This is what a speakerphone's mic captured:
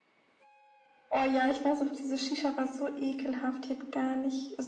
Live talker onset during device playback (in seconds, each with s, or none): none